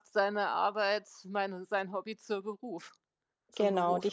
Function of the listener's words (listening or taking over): taking over